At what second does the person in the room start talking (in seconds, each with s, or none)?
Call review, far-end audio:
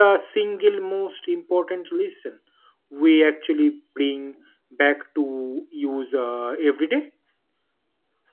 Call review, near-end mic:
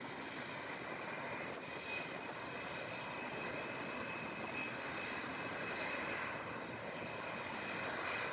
none